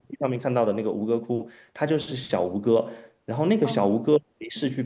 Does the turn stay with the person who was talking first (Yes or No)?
Yes